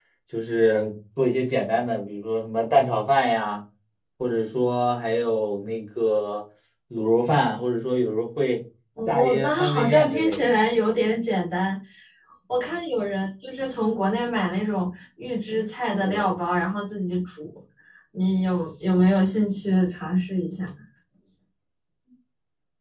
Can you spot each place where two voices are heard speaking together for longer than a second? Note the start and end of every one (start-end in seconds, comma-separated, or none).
9.1-10.5